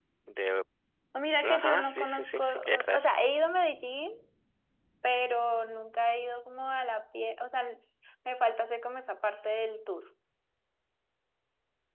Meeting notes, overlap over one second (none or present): present